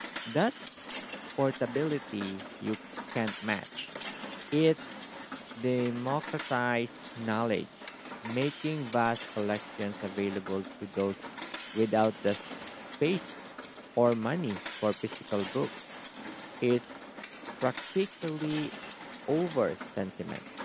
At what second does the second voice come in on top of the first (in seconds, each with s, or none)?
none